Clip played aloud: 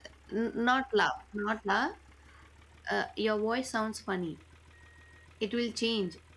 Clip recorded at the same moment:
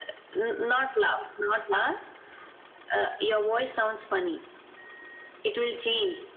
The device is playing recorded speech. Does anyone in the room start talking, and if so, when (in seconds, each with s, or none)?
none